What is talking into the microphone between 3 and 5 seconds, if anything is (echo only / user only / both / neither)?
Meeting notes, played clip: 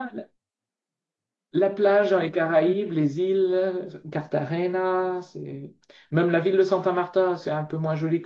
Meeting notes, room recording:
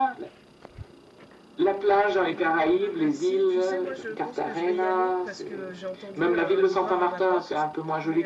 both